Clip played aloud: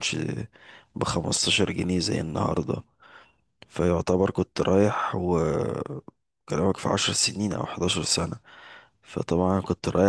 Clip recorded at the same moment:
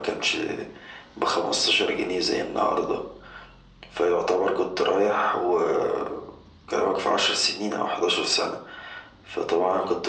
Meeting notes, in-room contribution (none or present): none